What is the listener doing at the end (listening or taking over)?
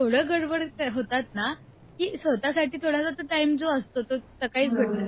listening